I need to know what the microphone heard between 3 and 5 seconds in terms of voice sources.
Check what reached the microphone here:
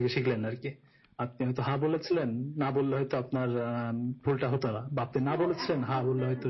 echo only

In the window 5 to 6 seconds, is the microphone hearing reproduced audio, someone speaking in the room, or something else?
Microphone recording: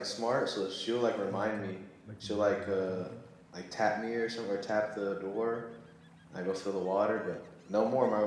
echo only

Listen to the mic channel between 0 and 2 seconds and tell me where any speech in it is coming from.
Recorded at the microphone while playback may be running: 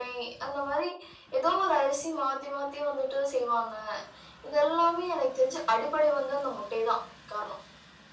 echo only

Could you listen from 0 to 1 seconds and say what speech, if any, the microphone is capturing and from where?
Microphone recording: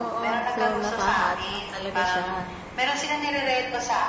both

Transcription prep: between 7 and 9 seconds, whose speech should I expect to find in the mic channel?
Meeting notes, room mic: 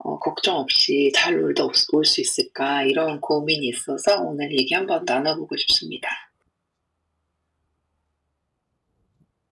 neither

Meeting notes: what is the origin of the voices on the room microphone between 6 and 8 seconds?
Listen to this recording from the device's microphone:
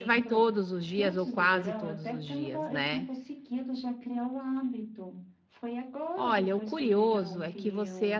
both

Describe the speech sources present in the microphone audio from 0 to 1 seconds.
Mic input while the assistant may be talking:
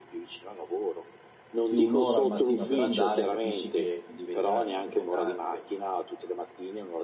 echo only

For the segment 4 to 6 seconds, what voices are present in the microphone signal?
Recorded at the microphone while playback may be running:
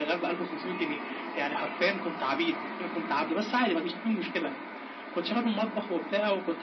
echo only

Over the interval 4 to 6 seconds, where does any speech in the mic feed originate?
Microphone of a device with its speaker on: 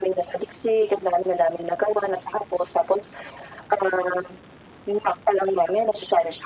echo only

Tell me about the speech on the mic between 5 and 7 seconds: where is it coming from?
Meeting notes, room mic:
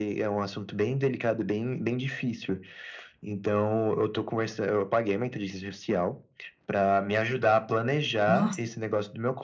echo only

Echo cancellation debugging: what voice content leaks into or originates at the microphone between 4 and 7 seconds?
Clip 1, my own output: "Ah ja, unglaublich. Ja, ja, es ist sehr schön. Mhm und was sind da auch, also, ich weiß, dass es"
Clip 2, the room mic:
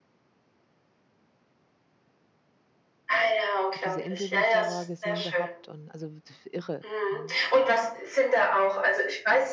both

